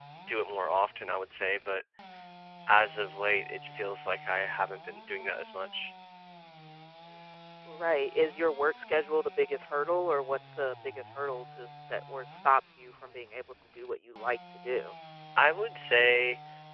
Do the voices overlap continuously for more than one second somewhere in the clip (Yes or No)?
No